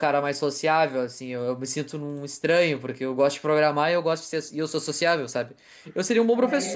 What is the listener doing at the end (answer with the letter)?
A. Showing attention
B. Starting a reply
A